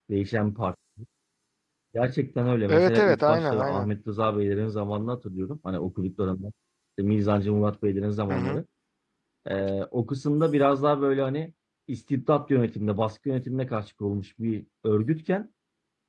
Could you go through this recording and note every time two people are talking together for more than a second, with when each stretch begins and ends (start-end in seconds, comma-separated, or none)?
2.7-3.9